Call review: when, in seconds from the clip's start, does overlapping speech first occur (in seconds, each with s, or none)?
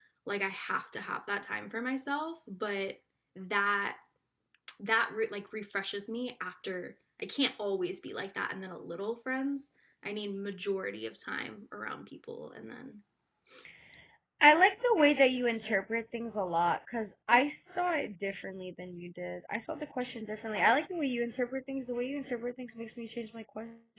none